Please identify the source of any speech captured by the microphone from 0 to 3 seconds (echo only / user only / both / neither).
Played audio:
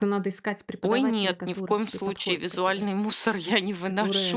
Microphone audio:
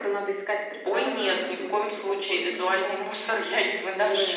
both